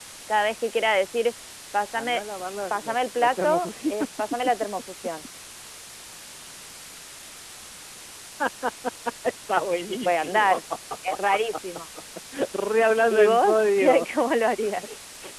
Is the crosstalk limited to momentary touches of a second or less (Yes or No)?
No